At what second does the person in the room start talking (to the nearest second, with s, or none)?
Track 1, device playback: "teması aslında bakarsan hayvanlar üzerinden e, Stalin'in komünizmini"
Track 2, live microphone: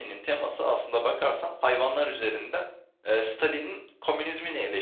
none